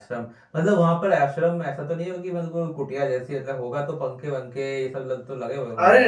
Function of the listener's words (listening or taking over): taking over